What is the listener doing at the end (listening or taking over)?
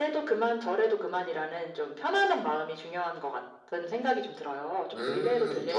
taking over